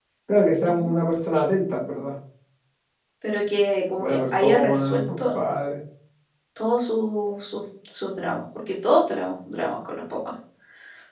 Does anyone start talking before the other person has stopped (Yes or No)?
Yes